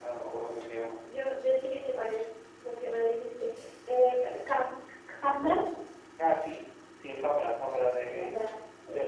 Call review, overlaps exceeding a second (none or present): none